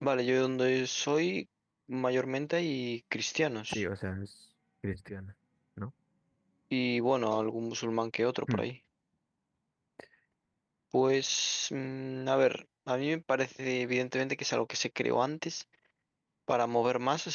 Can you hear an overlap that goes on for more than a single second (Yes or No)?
No